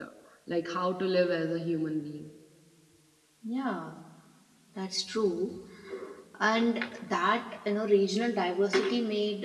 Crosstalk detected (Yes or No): No